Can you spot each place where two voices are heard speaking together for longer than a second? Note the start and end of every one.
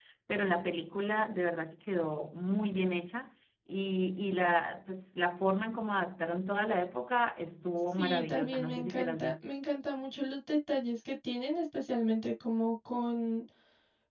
8.0-9.5

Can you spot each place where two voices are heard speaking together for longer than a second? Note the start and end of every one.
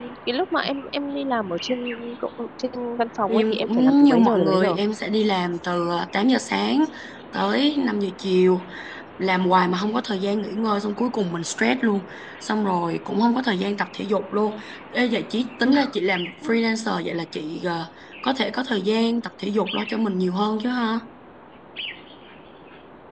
3.3-4.7

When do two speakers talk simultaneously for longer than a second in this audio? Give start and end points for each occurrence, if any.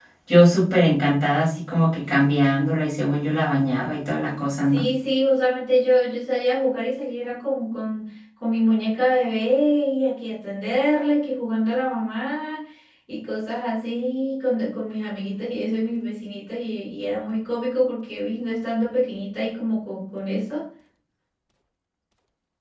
none

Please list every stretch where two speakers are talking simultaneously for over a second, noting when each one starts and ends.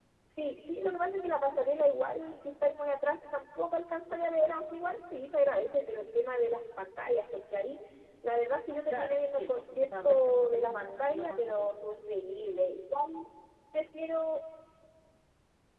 8.9-11.7

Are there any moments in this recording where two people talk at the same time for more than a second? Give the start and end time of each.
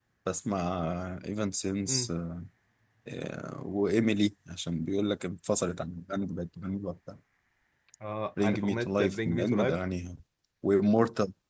8.4-9.8

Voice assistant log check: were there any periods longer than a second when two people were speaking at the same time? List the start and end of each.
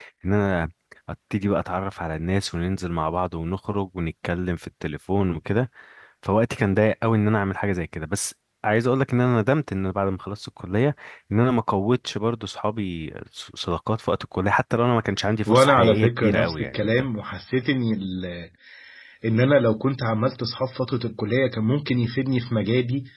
15.5-16.9

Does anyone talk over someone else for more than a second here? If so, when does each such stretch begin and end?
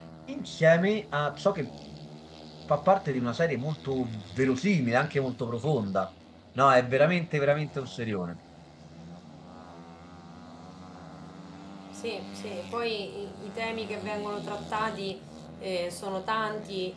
none

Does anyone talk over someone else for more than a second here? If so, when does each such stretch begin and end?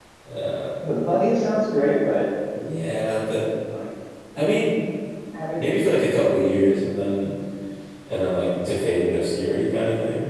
none

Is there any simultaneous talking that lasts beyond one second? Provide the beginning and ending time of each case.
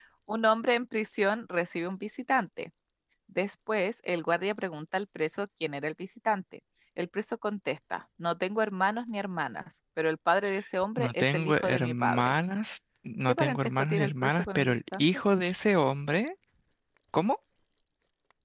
11.0-12.3, 13.3-15.1

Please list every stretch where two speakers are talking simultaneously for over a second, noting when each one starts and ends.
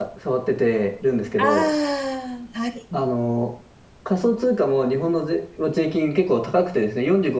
none

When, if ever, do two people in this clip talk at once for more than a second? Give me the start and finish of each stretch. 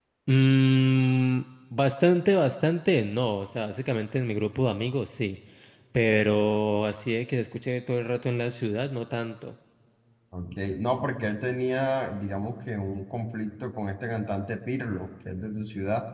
none

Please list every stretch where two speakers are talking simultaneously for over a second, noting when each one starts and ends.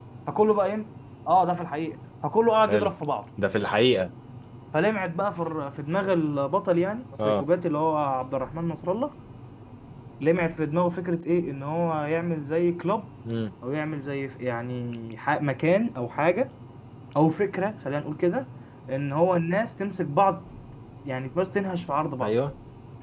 none

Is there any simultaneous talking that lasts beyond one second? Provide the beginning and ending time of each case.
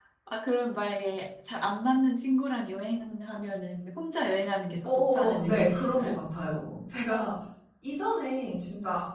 4.8-6.2

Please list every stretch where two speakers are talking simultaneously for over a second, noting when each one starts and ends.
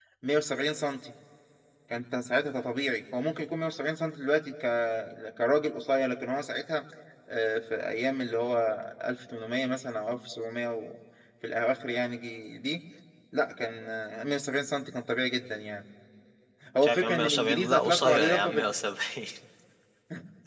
16.8-18.6

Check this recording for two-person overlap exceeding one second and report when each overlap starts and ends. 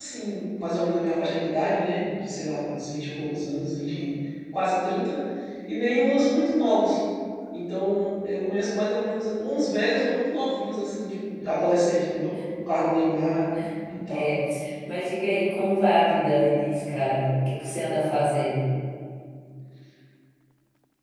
none

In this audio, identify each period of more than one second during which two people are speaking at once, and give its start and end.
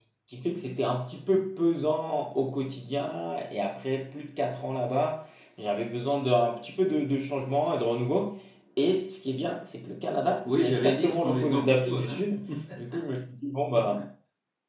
10.4-12.2

